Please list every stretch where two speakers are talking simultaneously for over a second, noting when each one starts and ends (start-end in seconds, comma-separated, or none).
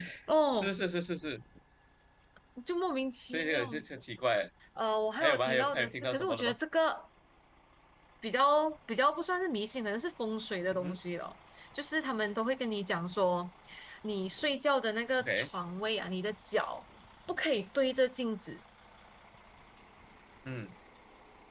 5.2-6.5